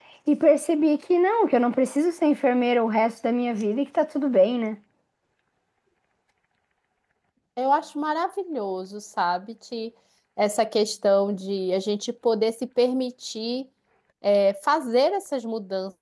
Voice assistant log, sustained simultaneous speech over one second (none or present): none